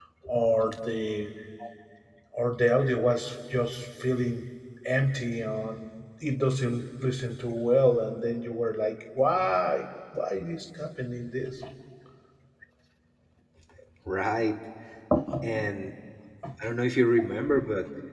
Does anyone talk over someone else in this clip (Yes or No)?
No